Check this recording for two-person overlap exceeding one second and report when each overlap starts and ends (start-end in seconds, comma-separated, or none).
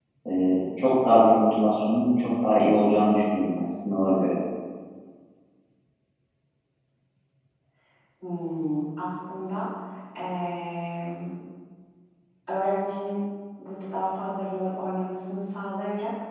none